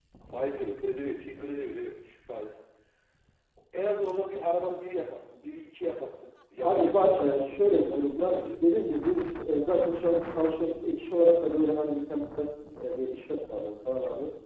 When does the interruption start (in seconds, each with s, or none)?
6.6 s